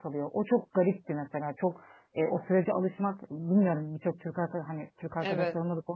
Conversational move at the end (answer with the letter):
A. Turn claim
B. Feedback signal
B